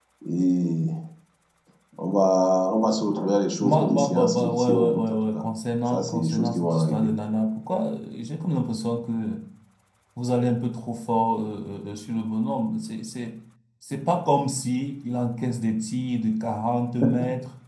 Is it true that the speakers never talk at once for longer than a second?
No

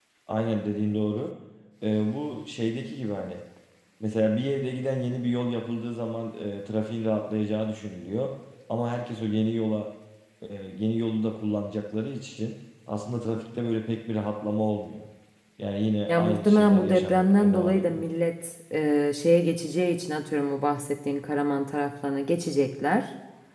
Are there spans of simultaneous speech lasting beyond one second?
Yes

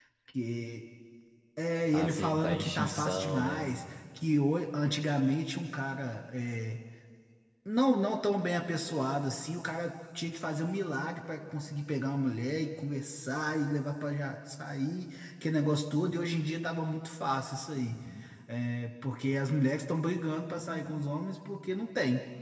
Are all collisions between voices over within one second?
No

